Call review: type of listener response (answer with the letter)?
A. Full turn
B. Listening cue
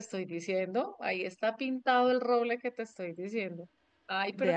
B